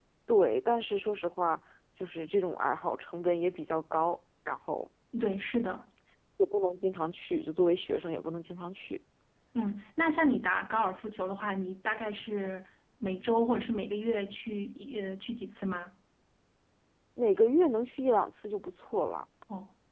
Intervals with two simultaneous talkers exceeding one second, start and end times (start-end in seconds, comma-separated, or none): none